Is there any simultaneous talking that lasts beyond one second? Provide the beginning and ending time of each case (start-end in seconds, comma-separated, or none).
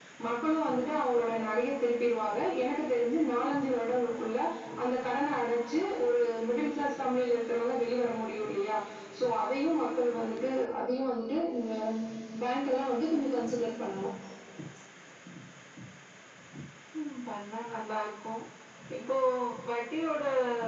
none